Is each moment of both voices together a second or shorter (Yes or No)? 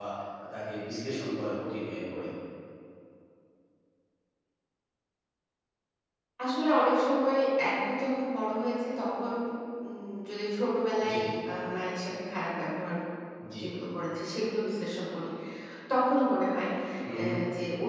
Yes